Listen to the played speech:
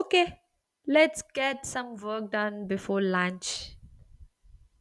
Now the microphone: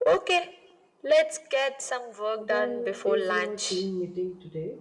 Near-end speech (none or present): present